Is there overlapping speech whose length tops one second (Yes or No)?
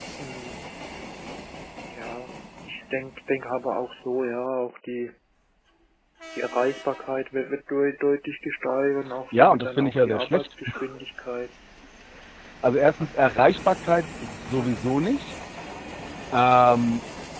Yes